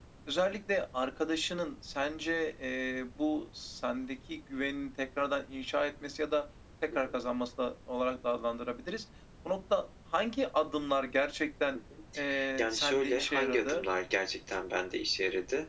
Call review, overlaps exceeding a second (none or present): present